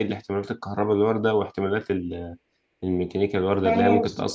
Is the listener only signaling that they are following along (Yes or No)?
No